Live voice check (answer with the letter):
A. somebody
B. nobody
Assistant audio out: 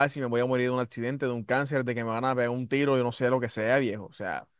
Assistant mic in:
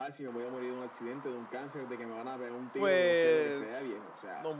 A